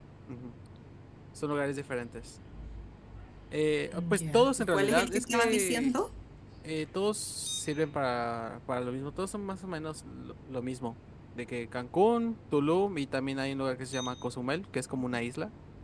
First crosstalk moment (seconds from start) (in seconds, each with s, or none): 4.2 s